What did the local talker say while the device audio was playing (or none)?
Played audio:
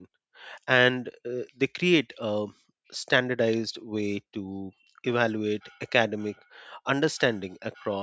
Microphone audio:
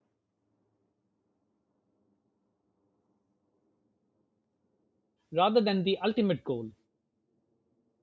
rather than the ultimate goal.